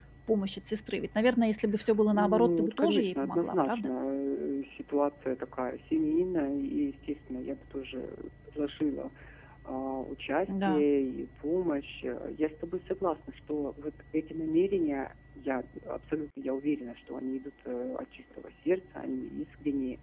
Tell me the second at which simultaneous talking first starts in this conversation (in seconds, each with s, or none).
2.1 s